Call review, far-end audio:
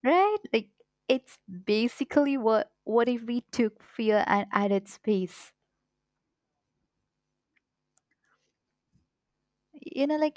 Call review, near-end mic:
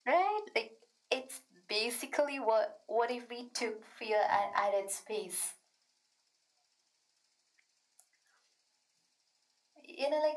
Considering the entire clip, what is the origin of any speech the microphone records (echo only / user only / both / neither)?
echo only